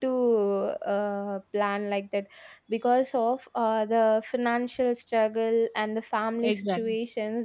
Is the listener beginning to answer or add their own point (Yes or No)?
No